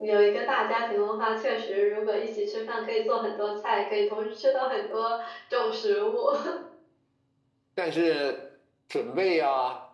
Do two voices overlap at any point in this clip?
No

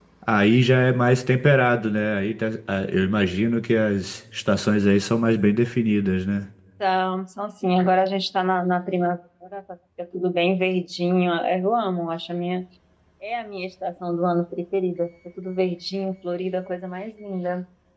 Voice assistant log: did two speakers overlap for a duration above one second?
No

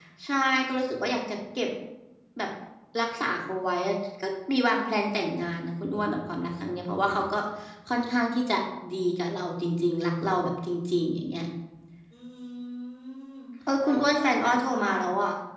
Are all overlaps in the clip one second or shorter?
No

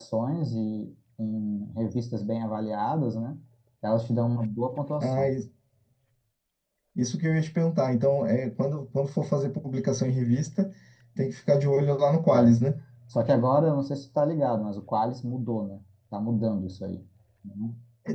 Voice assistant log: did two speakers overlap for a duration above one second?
No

